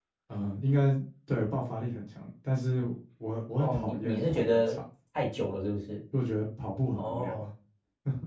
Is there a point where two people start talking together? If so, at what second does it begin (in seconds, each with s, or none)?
3.6 s